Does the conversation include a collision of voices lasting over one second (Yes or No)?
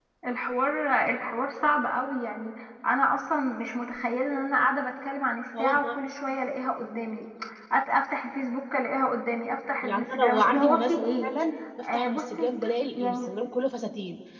Yes